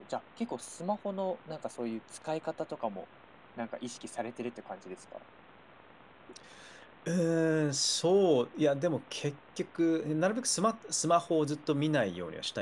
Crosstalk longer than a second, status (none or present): none